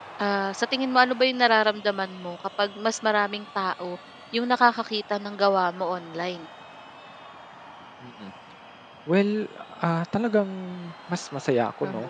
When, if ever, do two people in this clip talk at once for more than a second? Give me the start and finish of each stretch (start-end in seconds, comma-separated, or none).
none